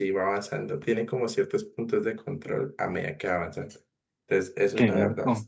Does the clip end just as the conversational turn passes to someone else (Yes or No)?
No